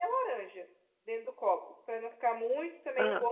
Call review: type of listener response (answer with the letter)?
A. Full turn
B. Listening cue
B